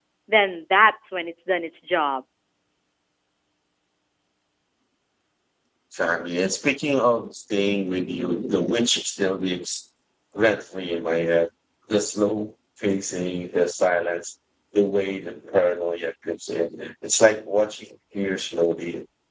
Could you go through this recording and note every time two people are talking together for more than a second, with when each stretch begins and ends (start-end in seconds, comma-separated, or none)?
none